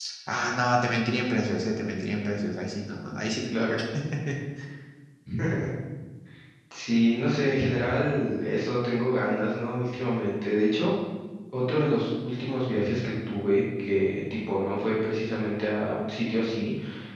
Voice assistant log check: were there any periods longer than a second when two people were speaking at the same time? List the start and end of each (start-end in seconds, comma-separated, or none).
none